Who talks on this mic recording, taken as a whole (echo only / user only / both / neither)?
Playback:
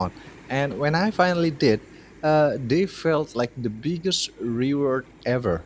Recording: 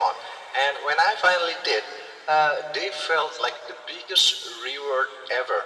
echo only